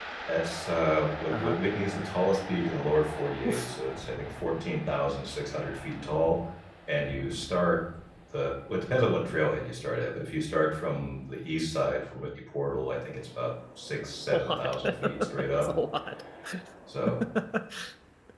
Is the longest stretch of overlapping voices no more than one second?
No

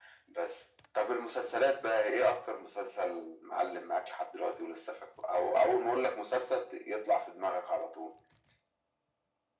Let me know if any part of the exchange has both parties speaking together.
No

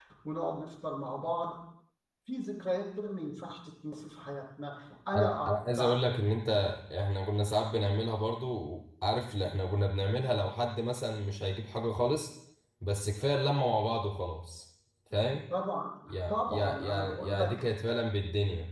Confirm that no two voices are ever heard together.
No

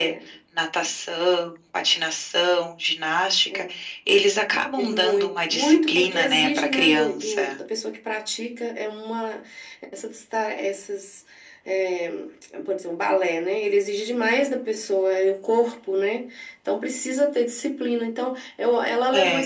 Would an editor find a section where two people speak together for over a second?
Yes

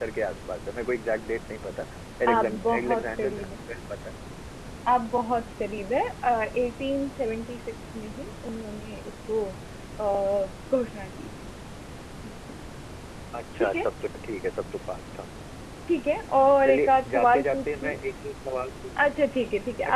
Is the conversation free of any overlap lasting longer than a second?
No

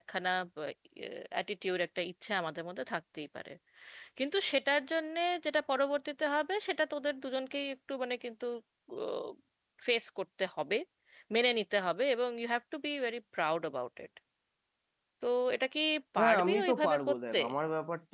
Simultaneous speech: Yes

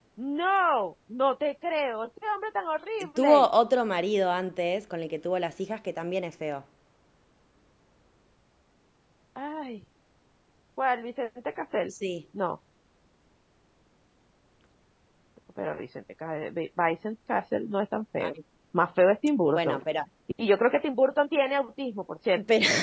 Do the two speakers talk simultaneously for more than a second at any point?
No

